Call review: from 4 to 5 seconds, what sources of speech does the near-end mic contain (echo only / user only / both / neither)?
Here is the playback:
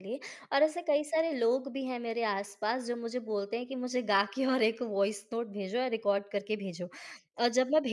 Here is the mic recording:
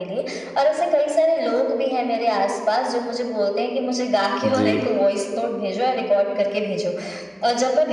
both